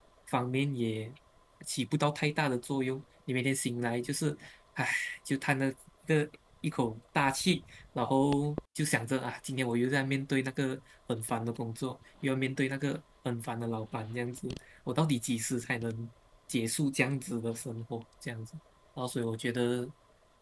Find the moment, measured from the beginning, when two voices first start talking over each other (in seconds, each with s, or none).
none